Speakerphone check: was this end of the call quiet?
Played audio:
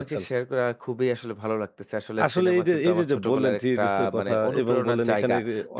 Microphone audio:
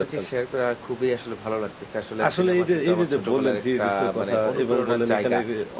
Yes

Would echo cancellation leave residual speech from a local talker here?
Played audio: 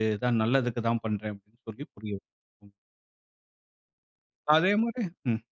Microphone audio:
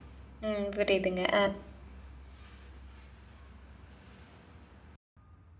Yes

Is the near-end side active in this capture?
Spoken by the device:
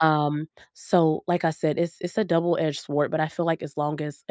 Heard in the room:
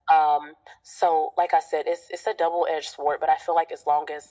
No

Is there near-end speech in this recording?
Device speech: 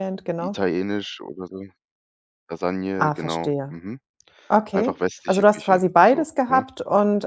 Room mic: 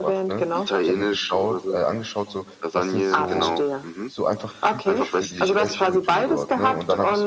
Yes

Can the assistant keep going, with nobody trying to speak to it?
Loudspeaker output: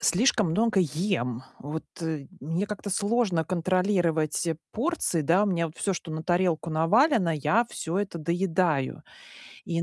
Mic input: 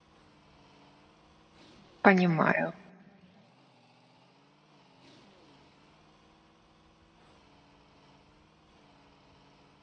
No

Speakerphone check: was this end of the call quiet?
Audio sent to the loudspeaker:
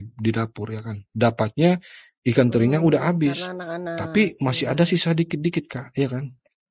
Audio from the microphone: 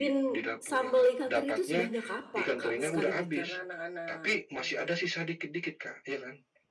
No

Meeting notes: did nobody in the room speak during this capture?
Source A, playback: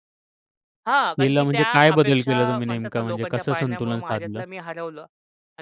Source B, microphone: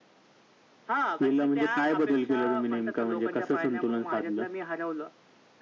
Yes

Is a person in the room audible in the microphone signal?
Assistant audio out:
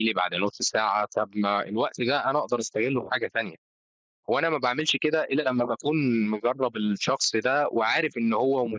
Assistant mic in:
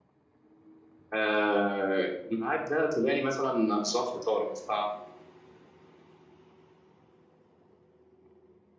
Yes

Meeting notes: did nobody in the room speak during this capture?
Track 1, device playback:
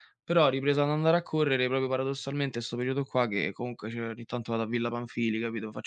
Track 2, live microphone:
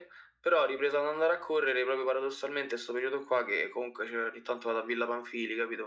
Yes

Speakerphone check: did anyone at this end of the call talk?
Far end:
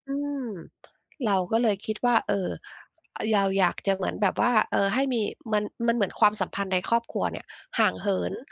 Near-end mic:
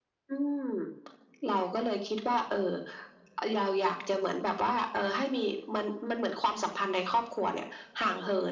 No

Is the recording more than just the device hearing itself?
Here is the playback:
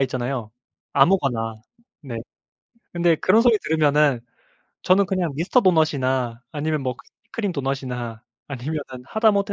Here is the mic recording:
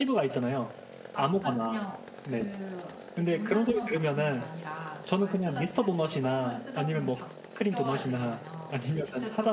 Yes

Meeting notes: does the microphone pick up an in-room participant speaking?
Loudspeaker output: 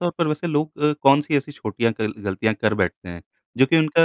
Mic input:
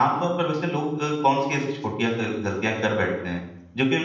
No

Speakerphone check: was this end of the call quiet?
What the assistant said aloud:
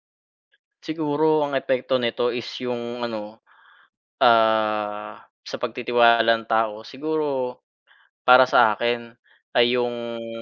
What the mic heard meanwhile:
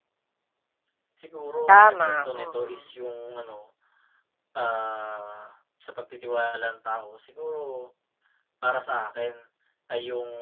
No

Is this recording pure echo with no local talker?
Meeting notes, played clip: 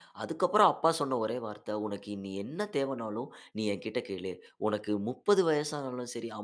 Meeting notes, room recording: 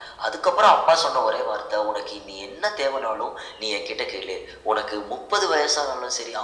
Yes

